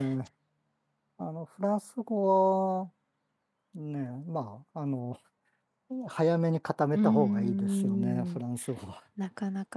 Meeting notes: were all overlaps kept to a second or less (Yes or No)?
No